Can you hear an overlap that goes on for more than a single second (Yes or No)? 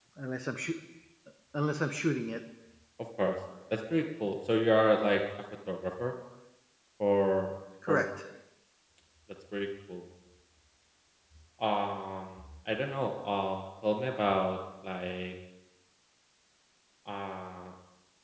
No